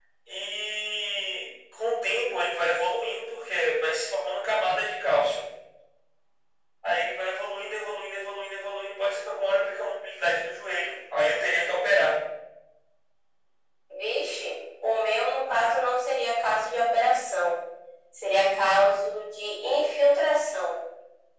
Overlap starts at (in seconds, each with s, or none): none